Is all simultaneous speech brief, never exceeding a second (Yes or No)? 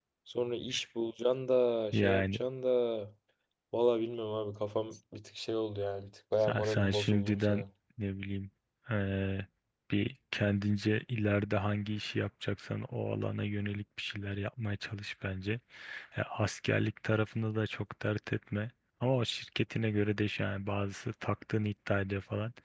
No